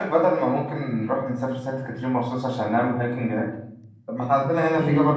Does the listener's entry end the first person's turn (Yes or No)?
No